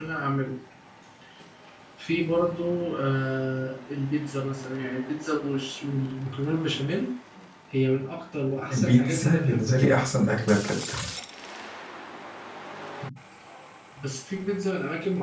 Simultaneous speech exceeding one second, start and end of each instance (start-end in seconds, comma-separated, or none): 8.7-9.9